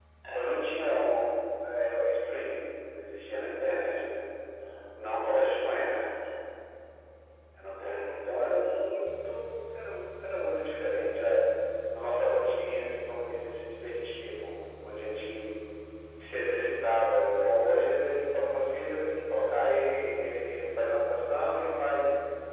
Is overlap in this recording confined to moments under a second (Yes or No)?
Yes